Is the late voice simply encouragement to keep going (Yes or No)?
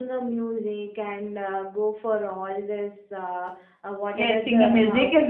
No